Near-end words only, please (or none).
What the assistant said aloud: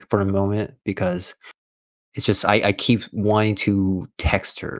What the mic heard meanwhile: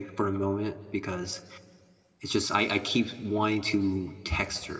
none